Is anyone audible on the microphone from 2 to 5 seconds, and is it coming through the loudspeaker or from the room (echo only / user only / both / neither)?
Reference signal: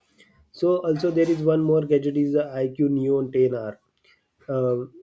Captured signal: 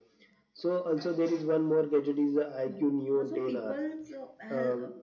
both